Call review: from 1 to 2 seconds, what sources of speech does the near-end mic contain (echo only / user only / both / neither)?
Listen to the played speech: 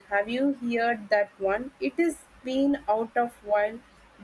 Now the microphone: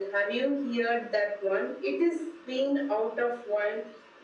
echo only